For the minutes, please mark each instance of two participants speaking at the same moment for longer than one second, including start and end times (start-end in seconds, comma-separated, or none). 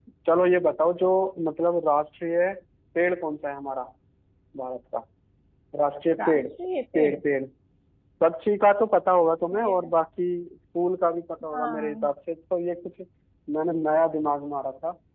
none